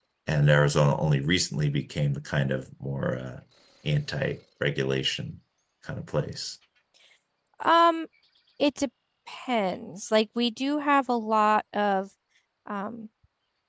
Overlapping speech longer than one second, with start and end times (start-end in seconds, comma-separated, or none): none